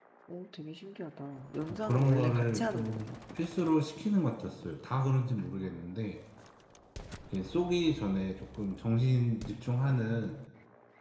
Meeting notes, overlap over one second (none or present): present